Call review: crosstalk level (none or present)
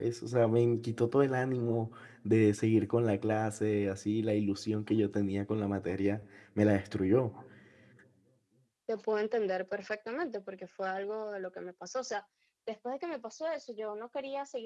none